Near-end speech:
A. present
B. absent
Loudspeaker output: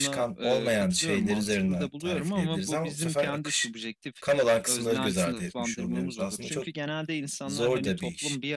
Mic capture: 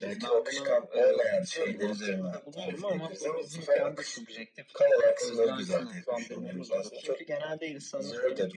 B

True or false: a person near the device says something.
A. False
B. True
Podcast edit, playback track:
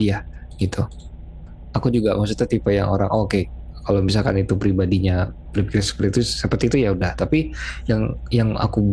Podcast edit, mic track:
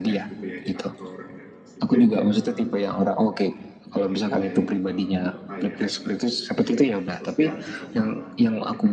B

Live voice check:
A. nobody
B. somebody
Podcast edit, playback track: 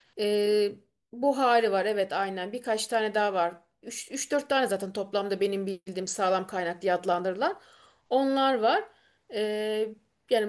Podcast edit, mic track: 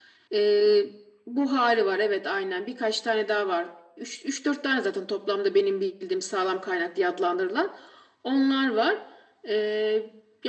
A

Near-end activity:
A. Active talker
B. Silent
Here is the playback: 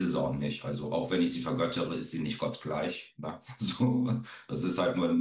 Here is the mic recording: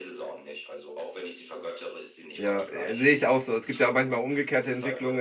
A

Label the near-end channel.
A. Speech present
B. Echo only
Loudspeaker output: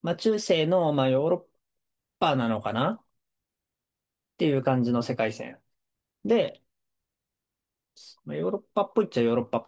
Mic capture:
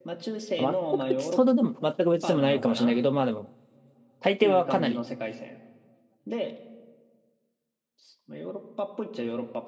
A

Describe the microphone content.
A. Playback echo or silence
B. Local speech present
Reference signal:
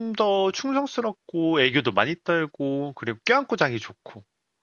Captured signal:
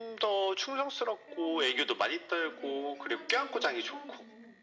B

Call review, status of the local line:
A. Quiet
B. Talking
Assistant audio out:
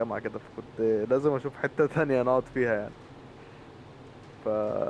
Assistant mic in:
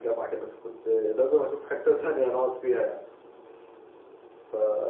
A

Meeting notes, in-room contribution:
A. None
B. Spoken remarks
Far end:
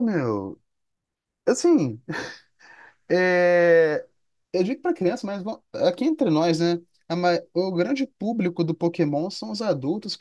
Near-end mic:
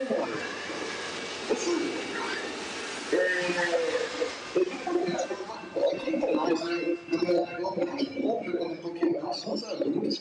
A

